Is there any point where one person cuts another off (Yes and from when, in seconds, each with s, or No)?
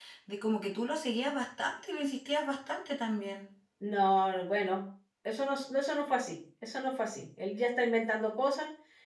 No